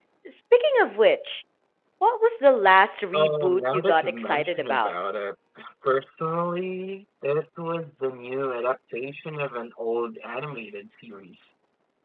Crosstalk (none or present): present